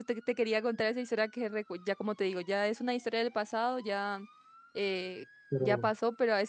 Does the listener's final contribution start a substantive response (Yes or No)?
No